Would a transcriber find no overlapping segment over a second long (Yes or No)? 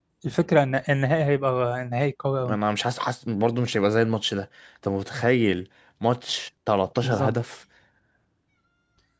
Yes